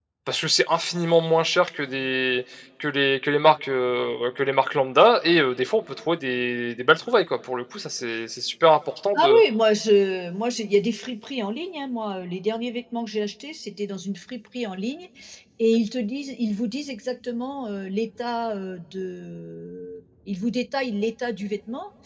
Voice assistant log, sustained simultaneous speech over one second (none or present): none